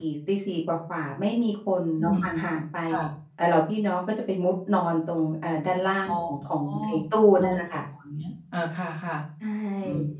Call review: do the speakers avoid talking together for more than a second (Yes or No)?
Yes